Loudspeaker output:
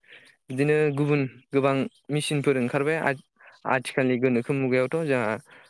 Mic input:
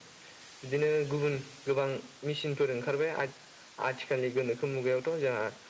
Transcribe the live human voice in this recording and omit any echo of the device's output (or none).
none